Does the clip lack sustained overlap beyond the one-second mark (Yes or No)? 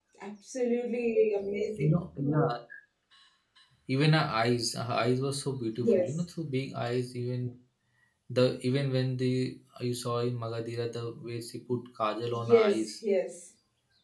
Yes